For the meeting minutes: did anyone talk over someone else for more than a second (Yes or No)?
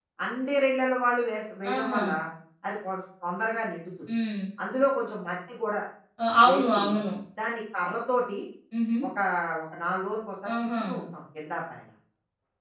No